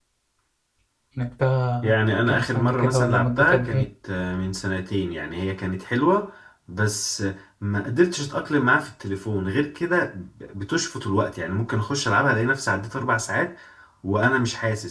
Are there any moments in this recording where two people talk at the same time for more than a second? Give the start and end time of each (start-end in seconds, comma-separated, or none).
1.8-3.9